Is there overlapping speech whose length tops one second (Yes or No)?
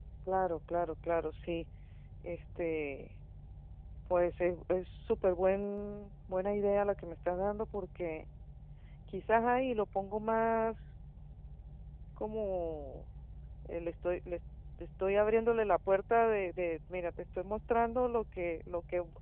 No